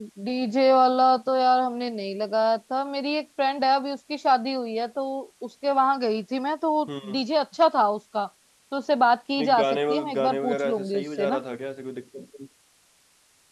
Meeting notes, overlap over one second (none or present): present